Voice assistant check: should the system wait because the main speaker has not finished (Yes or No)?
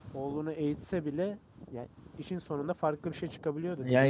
No